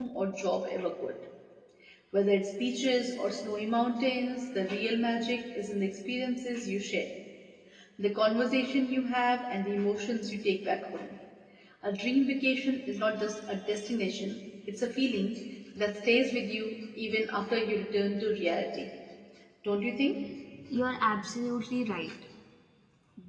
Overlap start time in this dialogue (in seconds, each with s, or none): none